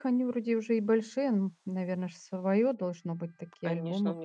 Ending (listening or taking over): taking over